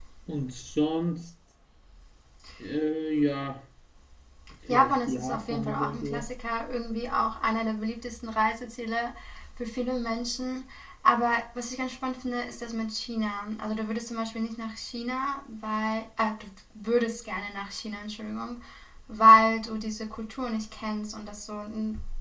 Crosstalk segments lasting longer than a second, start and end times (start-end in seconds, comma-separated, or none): 4.7-6.3